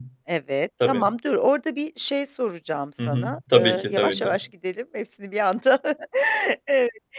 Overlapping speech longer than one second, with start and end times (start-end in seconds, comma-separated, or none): 3.0-4.3